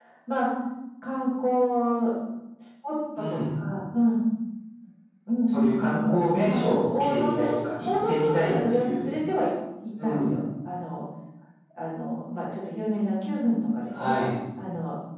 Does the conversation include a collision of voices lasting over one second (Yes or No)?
Yes